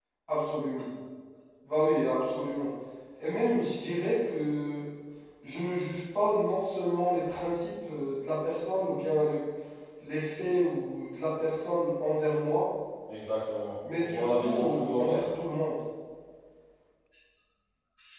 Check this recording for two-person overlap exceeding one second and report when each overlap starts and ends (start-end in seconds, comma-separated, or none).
13.9-15.2